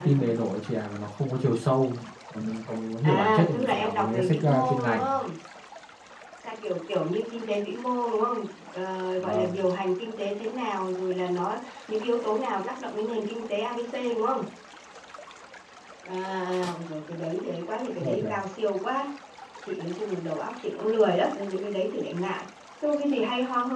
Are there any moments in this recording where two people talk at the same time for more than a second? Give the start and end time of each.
3.0-5.2

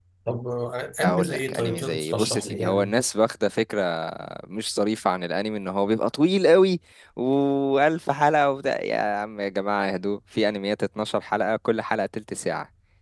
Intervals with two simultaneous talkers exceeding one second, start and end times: 1.0-2.9

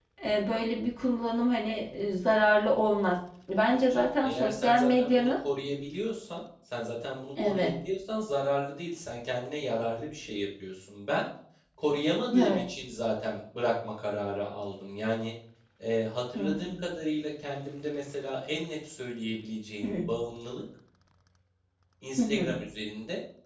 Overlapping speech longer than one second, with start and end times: 3.7-5.4

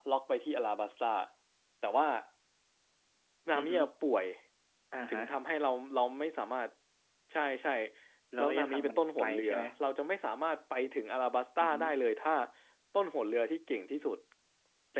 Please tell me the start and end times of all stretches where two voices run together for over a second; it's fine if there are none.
8.4-9.6

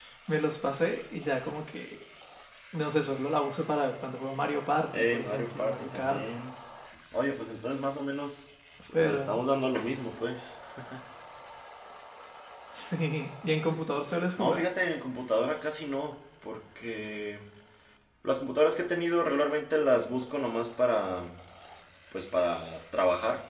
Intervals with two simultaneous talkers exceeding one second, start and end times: 4.9-6.2

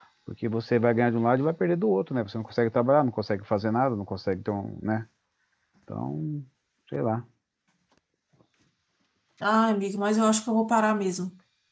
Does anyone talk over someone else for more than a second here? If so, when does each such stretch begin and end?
none

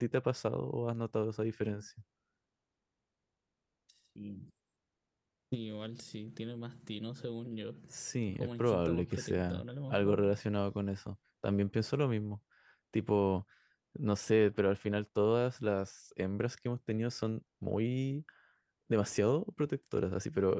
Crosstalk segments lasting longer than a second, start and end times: 8.2-10.2

